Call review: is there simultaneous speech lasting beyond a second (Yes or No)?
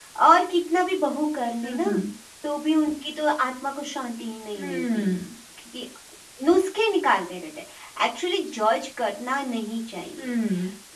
No